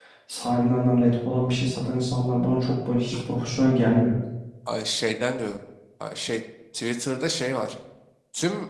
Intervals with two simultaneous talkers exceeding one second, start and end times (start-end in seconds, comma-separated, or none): none